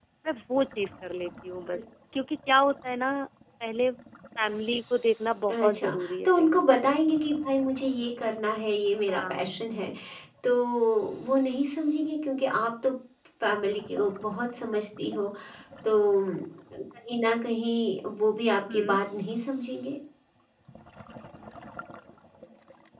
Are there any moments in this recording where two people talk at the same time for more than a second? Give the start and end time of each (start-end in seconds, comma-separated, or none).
5.5-6.9